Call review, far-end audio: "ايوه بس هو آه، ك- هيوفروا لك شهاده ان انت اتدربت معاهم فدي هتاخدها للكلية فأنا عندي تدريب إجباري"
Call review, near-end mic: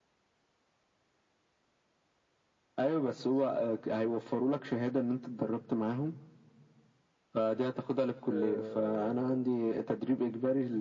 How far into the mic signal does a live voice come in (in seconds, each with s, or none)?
8.2 s